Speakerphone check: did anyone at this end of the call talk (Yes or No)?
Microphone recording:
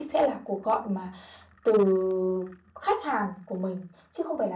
Yes